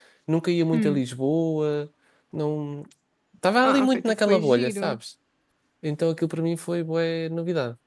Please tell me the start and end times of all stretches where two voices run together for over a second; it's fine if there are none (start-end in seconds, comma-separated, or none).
3.6-5.0